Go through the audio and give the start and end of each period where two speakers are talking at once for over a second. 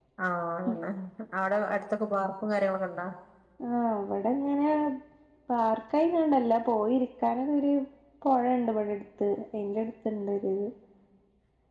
none

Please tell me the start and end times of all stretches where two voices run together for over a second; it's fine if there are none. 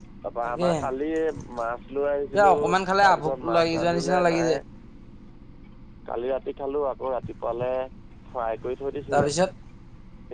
3.0-4.6

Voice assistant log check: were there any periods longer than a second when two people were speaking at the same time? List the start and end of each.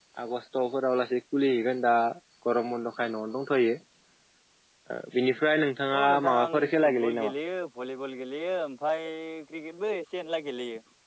6.0-7.3

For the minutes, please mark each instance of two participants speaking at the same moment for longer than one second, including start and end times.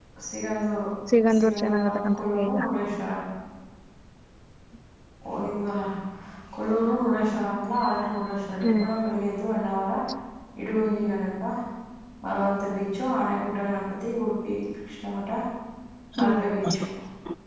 1.4-2.6

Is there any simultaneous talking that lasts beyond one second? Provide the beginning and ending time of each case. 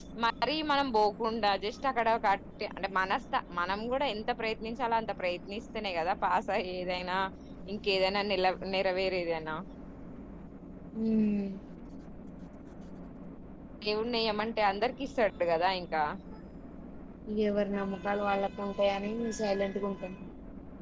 none

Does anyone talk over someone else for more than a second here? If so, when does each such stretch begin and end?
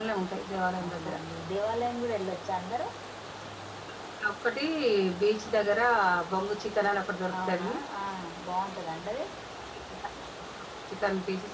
none

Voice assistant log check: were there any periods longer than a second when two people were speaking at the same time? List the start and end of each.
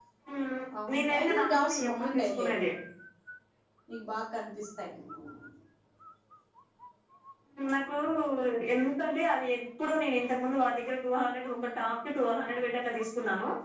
0.9-2.5

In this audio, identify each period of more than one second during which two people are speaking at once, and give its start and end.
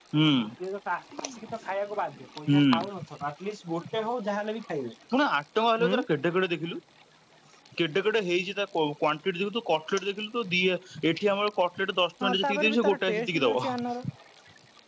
12.3-13.7

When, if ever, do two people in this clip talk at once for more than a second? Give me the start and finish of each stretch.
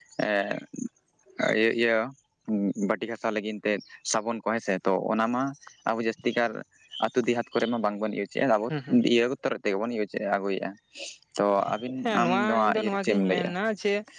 12.0-13.5

